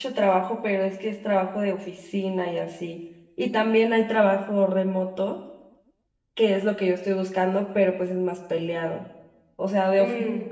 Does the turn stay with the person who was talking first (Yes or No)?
Yes